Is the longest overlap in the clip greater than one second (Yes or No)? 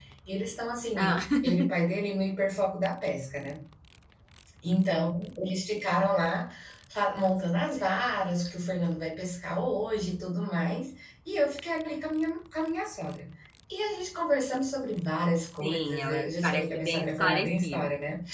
Yes